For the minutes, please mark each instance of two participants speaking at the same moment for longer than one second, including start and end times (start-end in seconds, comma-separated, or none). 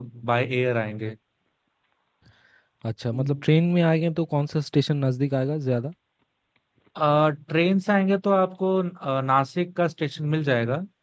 none